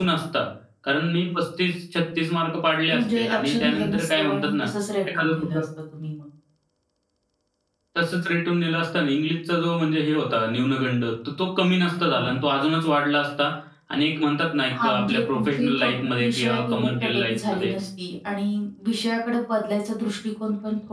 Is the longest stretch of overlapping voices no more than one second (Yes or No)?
No